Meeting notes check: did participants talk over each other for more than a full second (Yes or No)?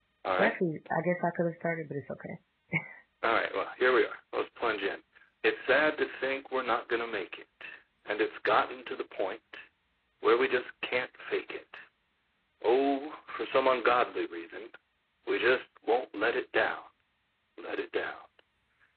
No